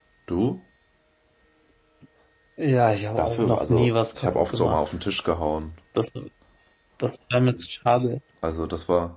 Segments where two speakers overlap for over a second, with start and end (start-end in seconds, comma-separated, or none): 3.2-4.8